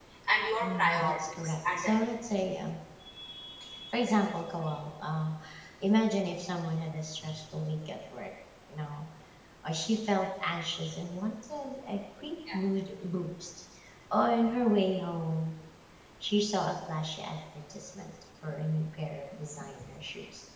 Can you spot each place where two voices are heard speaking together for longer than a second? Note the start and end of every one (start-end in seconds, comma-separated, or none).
0.6-2.2